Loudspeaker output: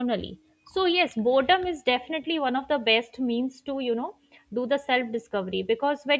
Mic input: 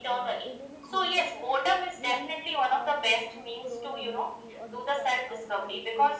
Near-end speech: present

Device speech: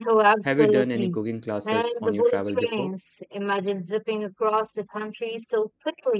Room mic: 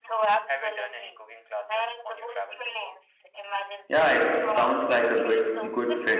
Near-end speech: present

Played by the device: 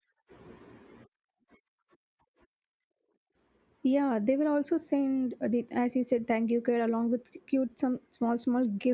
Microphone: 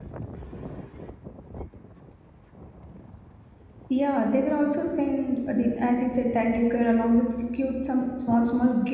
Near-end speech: none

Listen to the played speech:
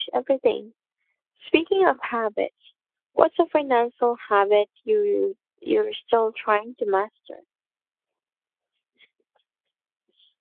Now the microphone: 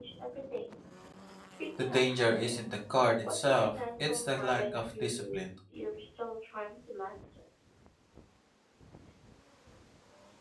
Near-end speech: present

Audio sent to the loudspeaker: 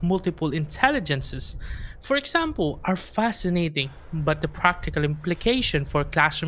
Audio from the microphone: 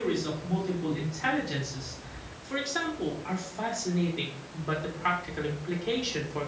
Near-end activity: none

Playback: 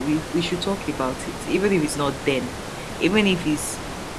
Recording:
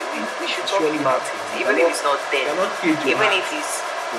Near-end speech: present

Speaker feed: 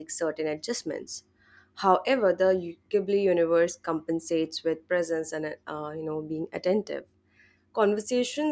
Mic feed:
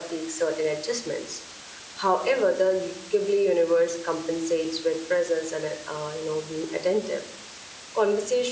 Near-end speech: none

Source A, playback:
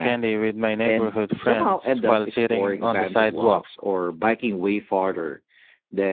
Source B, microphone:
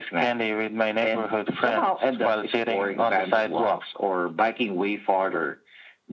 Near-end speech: none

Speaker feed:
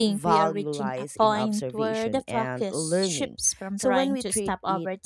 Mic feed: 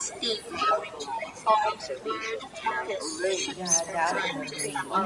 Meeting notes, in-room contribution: present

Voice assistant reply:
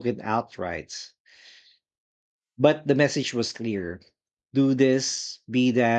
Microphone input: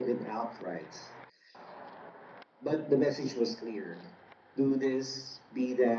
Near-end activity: none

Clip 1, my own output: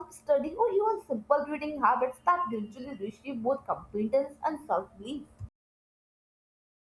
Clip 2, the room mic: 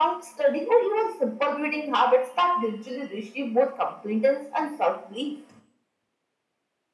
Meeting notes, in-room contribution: none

